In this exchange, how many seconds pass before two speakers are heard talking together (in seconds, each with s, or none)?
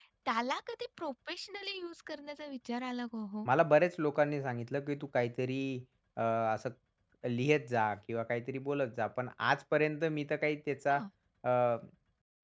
none